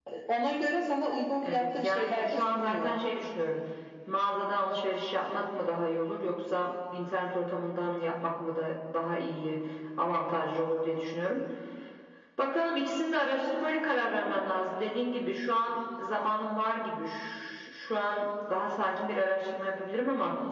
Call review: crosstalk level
present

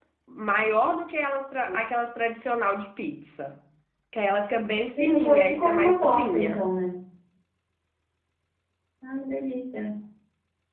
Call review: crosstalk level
present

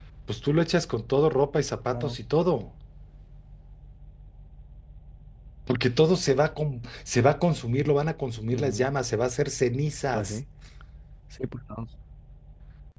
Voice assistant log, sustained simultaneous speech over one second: none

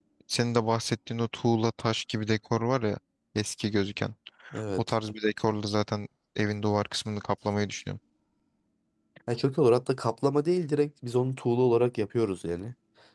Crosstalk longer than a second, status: none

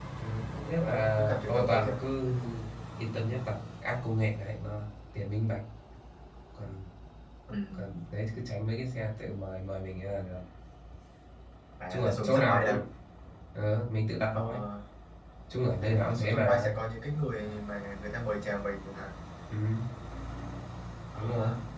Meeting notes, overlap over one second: present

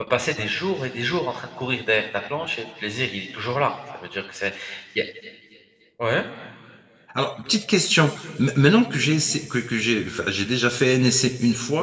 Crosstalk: none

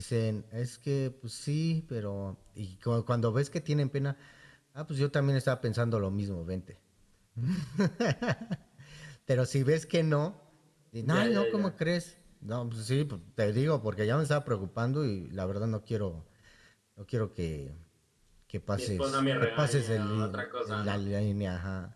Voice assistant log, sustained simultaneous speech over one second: present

